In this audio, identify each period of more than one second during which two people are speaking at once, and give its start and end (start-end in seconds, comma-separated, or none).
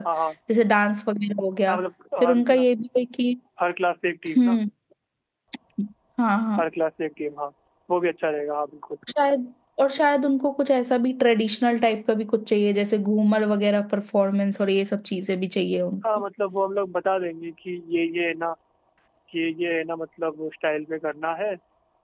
none